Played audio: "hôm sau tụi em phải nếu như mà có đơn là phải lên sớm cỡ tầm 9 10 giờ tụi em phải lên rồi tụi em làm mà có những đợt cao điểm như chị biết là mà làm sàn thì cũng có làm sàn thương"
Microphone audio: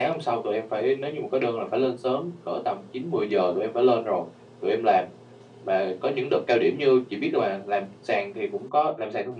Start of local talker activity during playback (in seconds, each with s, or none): none